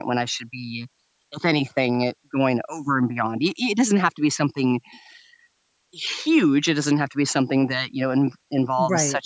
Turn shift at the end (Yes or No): No